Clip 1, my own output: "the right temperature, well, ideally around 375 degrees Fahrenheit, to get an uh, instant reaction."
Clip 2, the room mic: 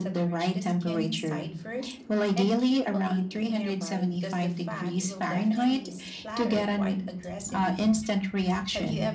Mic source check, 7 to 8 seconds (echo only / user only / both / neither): both